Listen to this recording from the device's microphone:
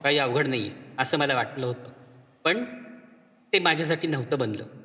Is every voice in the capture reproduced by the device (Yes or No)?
Yes